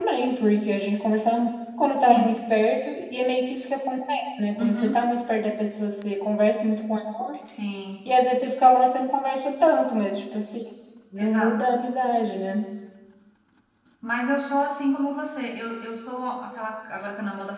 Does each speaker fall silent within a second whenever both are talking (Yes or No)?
Yes